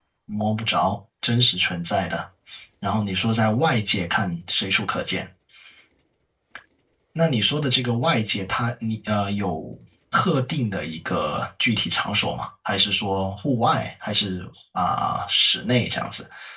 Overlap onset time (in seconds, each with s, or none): none